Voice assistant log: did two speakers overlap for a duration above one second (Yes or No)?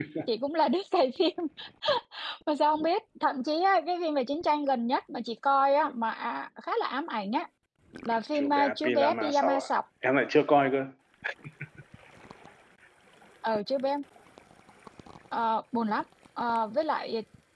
Yes